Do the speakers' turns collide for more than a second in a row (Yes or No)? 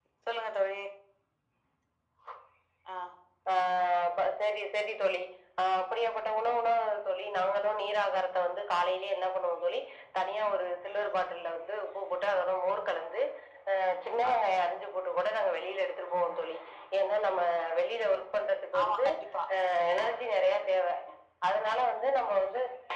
No